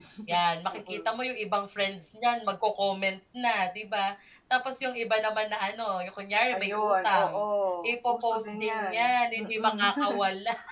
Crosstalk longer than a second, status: present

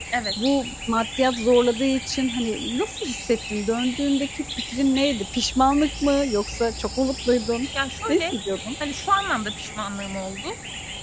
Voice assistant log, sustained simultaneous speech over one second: none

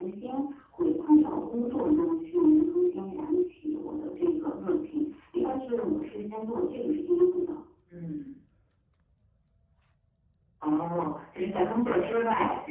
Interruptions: none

